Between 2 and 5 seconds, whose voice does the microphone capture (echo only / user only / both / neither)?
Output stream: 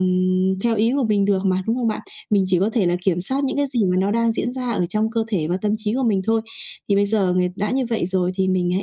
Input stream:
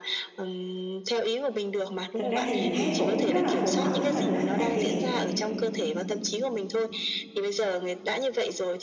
both